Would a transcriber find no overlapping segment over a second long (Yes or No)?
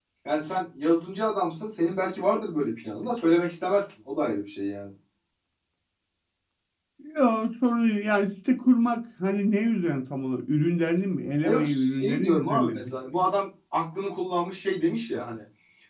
No